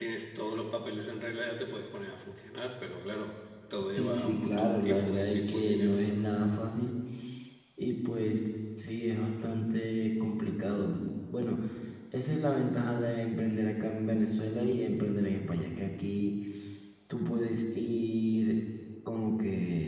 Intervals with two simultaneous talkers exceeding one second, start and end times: 4.0-6.2

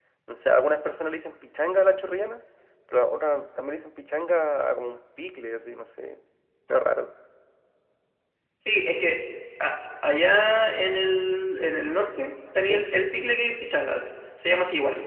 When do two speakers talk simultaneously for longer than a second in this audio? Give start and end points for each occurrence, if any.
none

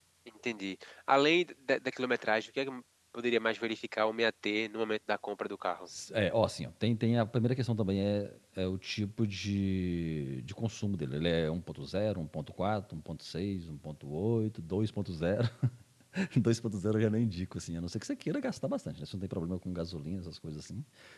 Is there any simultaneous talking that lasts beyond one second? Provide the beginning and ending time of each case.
none

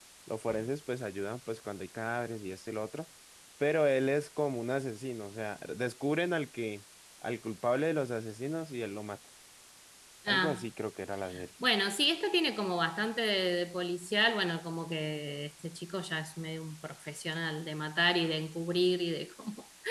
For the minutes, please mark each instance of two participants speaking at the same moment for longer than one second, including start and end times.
none

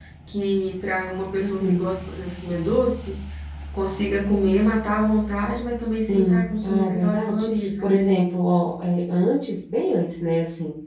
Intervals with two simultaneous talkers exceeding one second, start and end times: 5.9-7.9

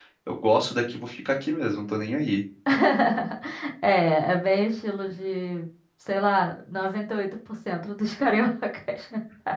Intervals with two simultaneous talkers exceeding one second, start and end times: none

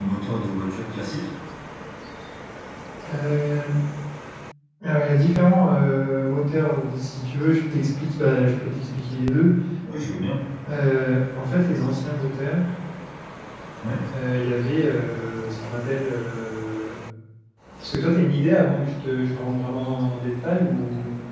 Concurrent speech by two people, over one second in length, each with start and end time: none

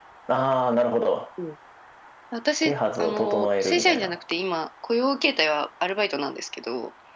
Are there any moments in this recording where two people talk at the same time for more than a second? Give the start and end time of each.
2.6-4.2

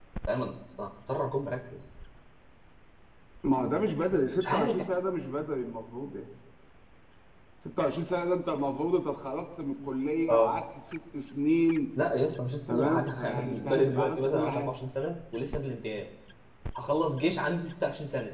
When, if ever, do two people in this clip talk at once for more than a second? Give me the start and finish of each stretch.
12.7-14.7

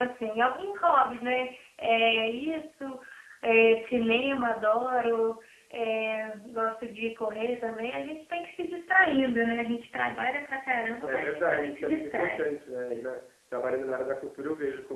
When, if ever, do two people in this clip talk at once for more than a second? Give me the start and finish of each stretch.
11.0-12.4

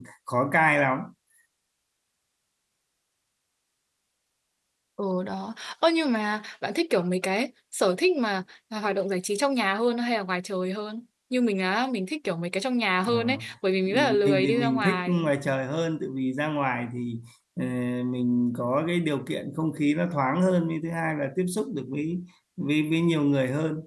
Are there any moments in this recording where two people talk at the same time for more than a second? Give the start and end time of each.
13.9-15.3

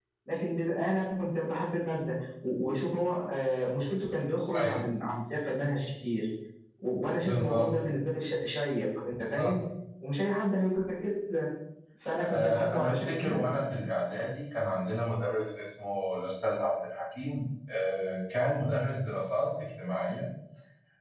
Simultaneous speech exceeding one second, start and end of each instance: 12.2-13.4

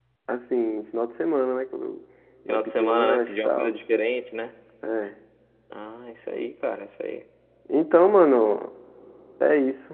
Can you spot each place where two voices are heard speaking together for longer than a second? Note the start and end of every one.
2.5-3.7

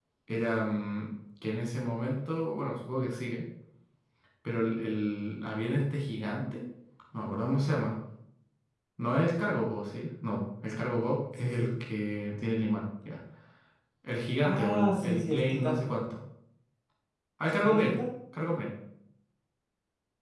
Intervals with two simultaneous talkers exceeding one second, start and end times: 14.4-15.9

